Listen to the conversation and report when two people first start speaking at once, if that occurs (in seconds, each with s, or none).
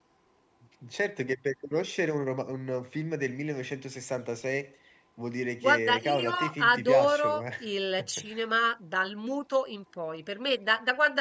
5.6 s